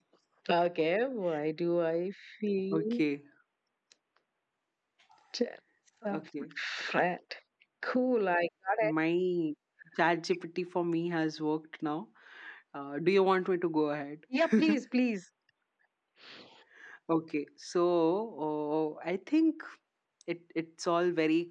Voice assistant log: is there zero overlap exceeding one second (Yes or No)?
Yes